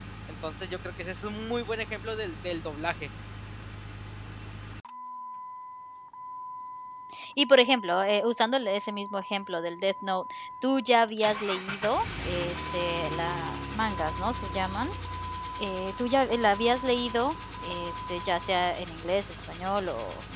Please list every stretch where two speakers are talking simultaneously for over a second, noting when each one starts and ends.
none

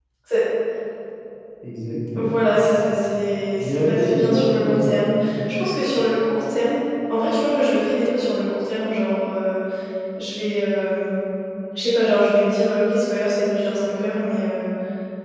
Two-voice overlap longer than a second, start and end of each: 3.6-5.0

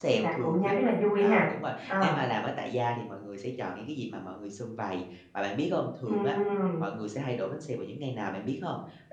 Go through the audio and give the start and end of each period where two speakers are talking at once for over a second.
none

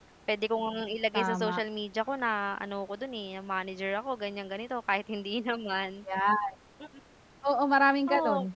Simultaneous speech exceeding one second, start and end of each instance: none

